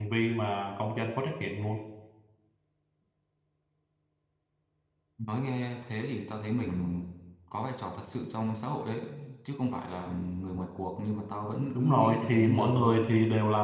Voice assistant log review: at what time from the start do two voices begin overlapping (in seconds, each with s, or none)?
11.8 s